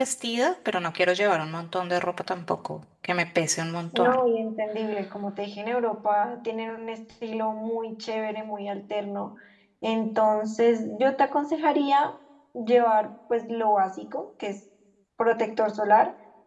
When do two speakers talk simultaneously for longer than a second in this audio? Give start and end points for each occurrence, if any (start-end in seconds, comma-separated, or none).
none